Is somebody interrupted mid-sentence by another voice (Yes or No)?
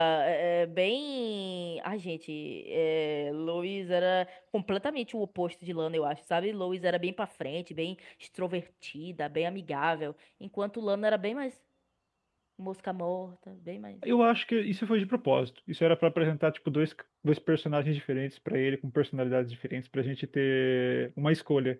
No